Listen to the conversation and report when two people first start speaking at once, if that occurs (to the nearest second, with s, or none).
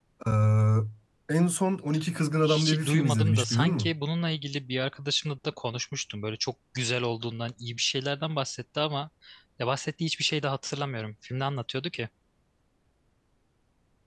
2 s